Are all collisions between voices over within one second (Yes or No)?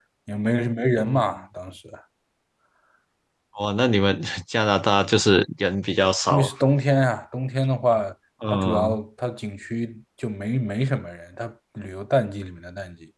Yes